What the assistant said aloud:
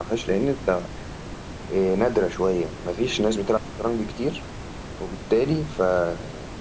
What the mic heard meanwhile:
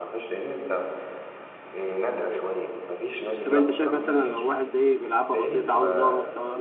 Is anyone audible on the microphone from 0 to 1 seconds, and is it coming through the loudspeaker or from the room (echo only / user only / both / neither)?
echo only